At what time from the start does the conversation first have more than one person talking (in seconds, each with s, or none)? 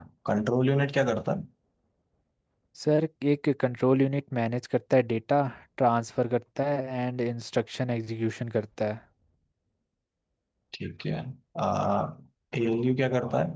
none